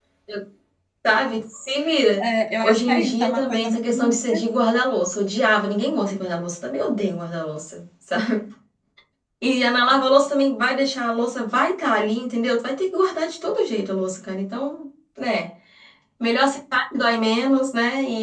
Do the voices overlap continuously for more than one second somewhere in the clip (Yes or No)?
Yes